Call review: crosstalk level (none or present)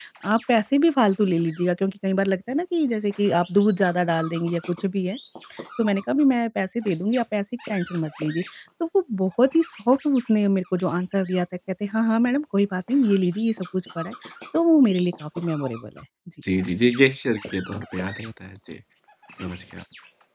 none